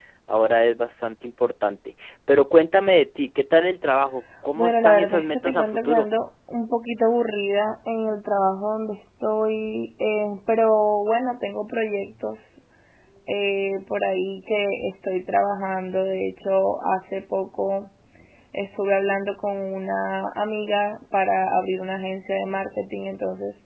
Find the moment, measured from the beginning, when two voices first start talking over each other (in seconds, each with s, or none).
4.6 s